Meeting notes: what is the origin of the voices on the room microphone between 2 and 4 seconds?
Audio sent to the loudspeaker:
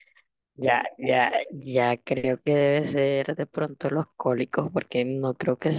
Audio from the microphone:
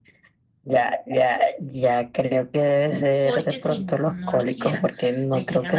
both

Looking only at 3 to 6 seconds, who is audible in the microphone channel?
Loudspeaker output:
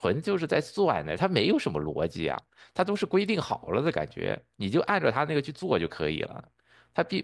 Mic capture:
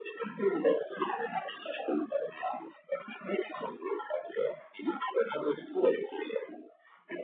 echo only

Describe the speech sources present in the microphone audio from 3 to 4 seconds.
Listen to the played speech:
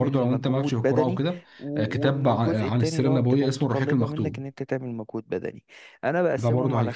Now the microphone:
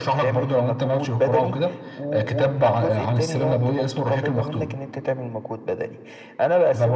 echo only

